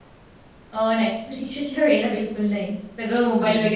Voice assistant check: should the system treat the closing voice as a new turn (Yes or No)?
No